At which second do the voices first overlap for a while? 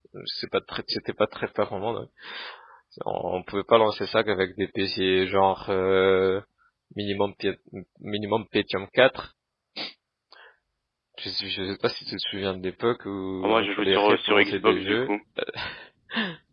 13 s

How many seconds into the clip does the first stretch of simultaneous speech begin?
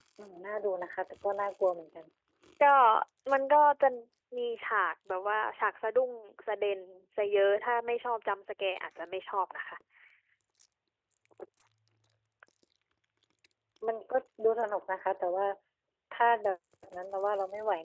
none

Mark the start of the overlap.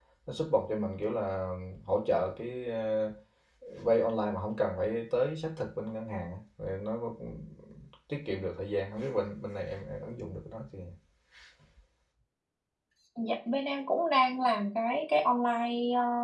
none

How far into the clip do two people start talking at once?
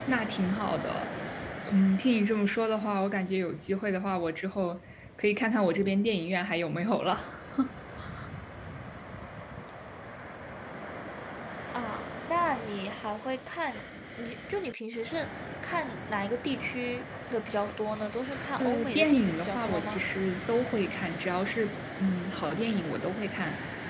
19 s

